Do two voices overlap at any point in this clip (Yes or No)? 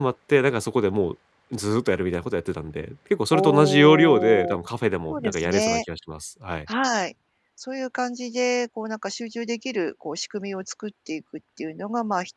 Yes